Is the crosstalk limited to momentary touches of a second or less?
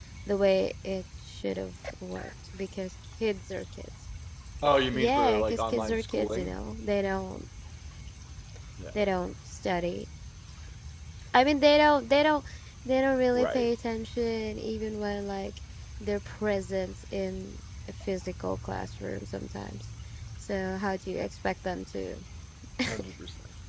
No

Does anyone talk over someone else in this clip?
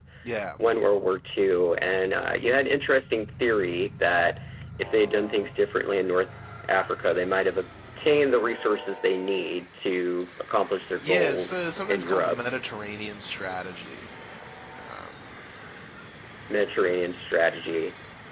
Yes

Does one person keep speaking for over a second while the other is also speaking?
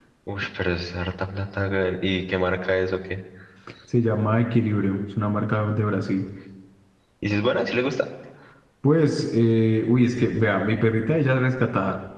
No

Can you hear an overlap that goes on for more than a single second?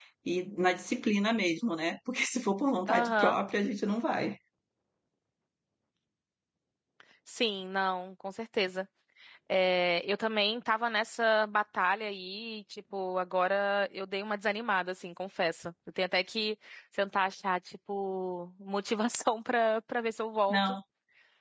No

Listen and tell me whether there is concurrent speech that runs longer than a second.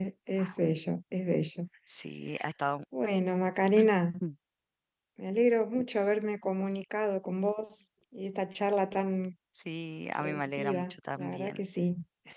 Yes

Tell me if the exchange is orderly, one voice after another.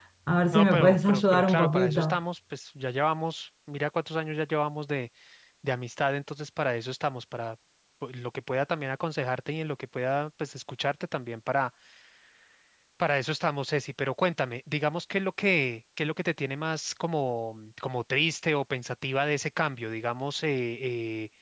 No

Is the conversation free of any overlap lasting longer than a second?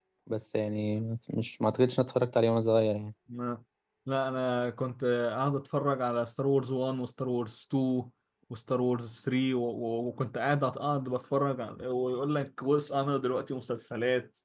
Yes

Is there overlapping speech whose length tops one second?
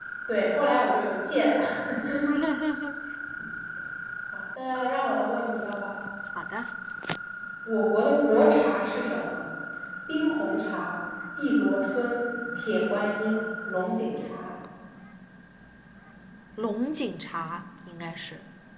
No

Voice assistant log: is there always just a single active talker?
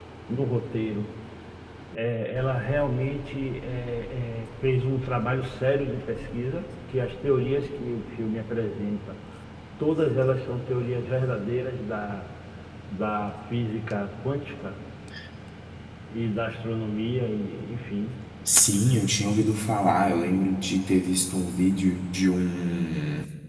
Yes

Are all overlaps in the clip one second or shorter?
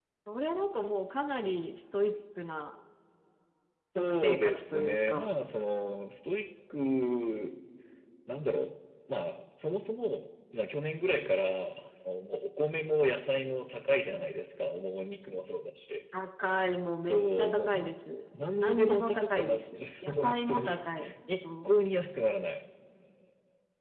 No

